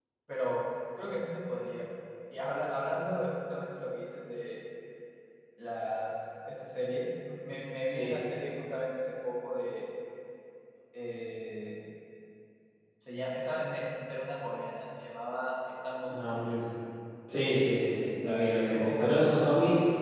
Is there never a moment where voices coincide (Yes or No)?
No